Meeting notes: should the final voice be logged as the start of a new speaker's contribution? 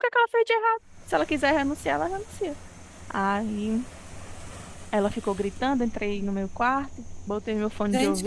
Yes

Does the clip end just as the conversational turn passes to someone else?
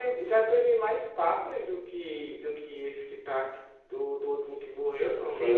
Yes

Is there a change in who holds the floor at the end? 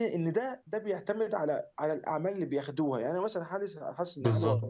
No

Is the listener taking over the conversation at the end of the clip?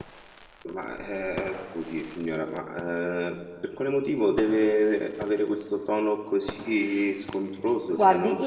Yes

